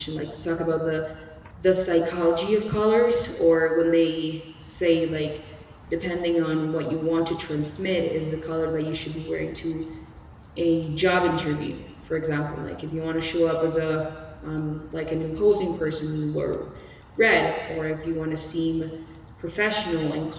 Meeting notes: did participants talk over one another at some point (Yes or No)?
No